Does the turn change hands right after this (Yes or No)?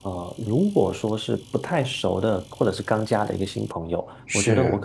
No